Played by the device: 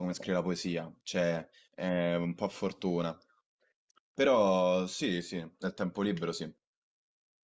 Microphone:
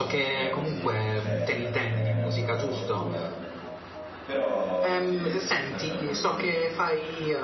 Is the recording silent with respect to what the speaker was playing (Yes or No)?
No